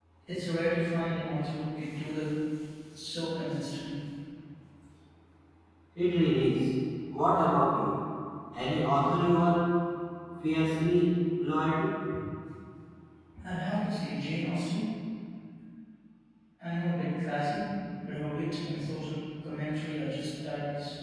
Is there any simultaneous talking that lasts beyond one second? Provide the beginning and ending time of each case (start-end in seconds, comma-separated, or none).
none